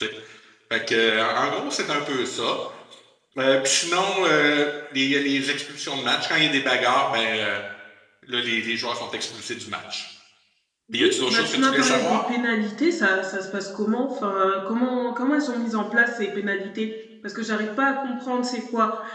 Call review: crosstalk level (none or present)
present